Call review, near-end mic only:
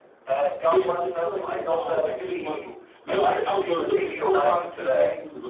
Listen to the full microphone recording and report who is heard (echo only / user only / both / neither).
both